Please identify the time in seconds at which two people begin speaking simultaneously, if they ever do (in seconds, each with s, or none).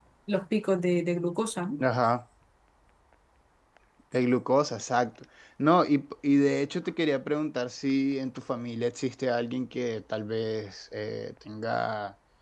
none